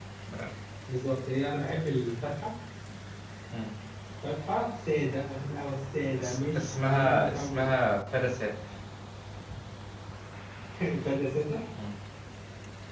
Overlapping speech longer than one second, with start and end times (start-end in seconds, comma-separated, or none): 6.2-7.8